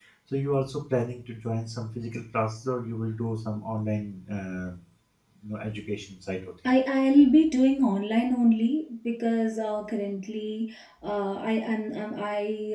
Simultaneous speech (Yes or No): No